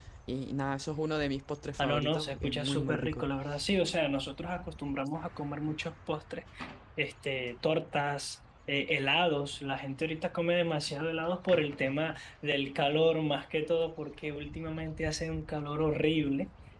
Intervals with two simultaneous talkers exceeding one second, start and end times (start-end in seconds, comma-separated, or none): 1.8-3.3